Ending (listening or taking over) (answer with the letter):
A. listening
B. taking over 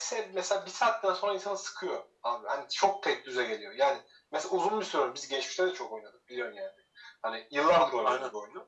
A